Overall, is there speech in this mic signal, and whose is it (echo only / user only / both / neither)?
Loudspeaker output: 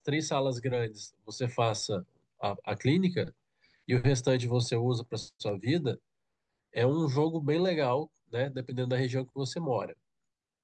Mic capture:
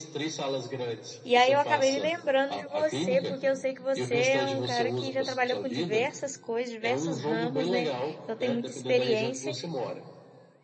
both